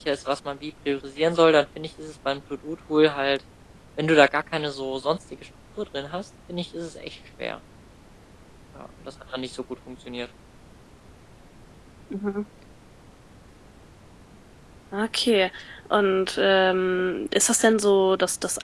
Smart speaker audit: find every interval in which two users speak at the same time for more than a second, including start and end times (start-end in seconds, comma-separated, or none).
none